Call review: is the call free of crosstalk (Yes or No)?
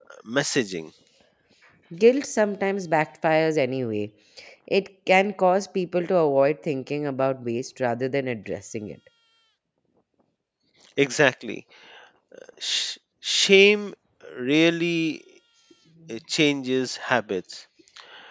Yes